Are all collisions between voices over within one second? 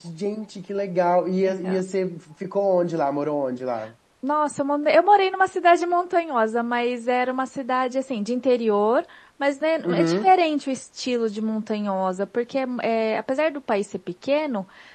Yes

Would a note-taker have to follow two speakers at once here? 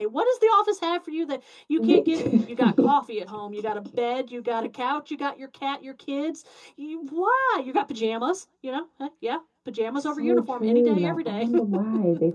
Yes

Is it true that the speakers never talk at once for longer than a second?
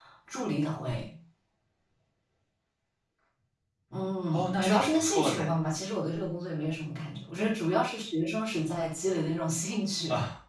No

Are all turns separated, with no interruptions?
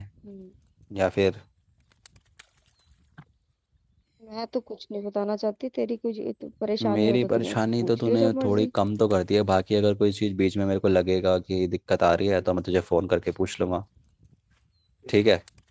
No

